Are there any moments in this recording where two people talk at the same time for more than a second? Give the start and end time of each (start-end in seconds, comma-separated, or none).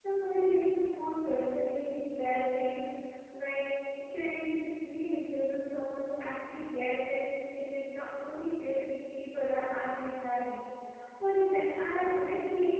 none